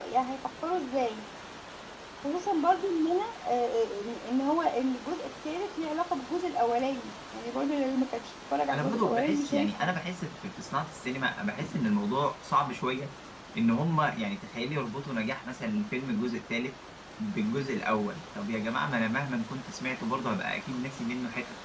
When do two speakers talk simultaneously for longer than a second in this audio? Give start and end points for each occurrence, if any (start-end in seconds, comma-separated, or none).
8.7-10.0